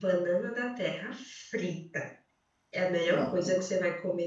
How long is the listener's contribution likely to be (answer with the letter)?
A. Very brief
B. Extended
A